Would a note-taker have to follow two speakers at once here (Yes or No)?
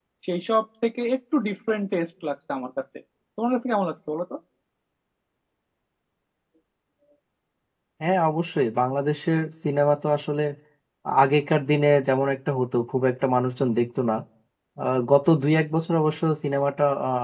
No